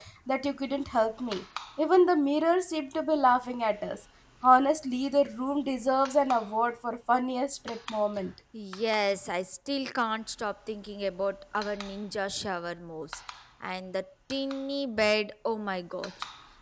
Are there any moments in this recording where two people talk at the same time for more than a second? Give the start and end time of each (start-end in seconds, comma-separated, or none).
none